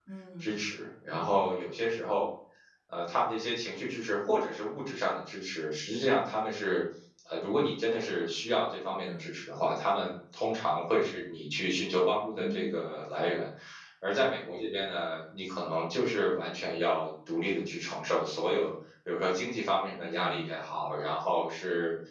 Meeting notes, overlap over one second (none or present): none